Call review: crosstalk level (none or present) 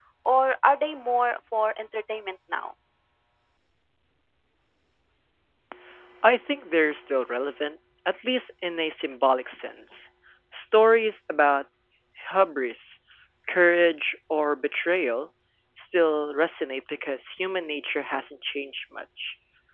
none